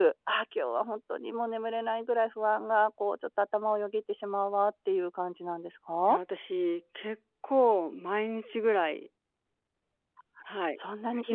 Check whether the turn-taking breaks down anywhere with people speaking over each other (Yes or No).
No